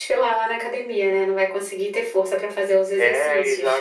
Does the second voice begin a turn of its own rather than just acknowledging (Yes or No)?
Yes